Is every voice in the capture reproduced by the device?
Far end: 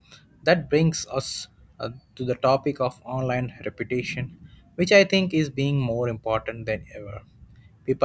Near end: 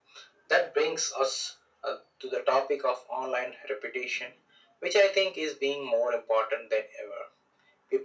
Yes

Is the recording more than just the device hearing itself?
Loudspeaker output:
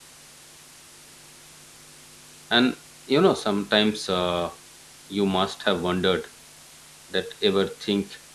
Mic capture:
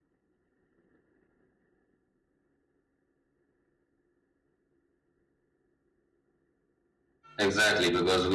Yes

